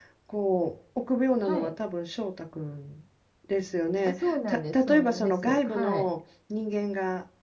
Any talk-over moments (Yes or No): Yes